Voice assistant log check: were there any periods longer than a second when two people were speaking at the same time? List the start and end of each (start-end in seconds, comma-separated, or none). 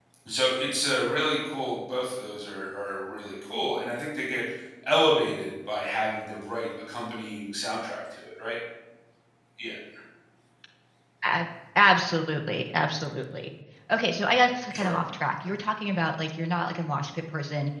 none